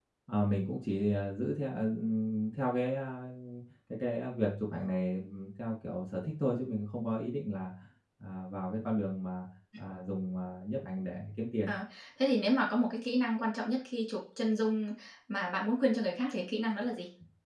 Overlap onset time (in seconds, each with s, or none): none